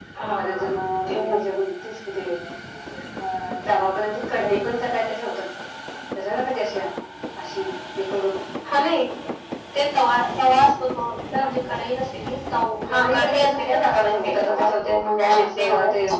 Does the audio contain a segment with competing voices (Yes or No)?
Yes